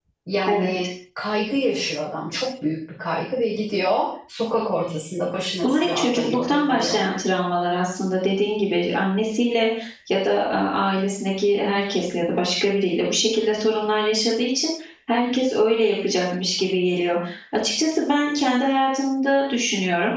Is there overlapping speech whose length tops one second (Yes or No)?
Yes